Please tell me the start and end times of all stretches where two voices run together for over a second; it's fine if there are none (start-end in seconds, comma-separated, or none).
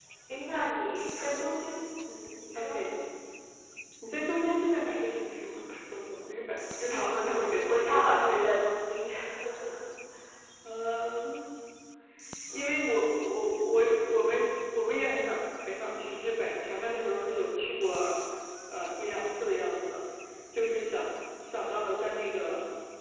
6.9-8.1